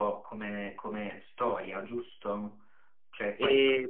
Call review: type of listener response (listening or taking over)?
listening